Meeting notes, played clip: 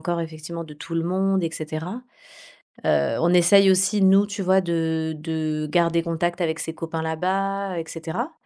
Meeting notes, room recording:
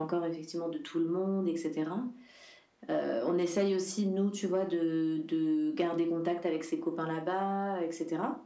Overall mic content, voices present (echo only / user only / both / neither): echo only